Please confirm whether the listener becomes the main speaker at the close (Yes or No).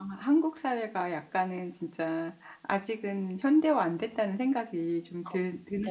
Yes